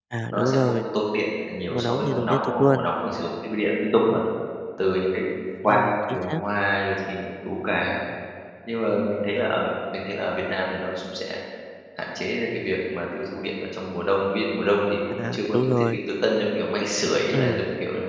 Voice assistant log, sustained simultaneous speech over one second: present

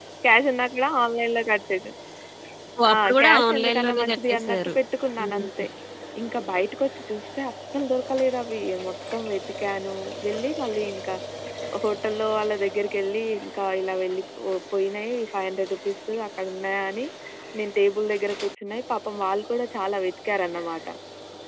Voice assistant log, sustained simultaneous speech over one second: present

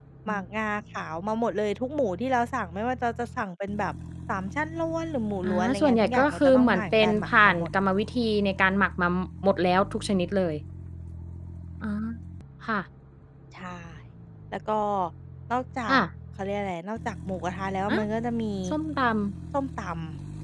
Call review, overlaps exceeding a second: present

